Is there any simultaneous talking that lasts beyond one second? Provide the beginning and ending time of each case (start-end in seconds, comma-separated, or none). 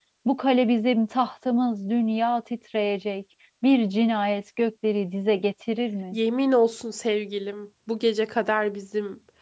none